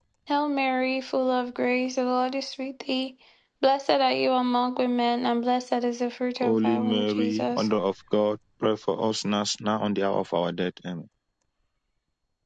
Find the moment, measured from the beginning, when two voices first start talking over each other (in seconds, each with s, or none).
6.4 s